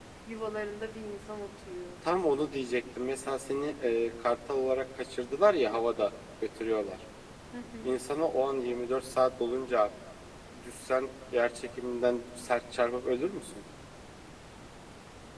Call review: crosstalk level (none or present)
none